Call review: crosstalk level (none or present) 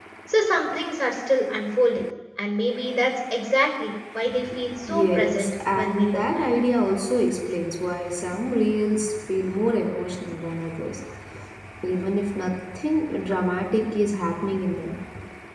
present